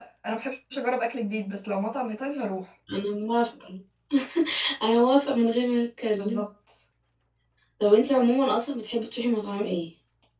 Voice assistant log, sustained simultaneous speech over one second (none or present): none